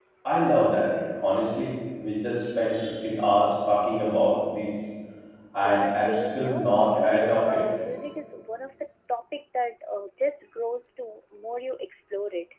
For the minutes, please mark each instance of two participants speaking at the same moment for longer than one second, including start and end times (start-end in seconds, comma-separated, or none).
5.6-7.6